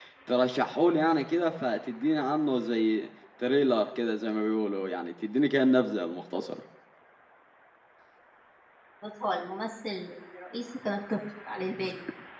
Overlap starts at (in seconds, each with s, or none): none